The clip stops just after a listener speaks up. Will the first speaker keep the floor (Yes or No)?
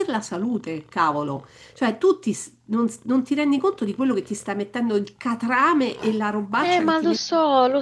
No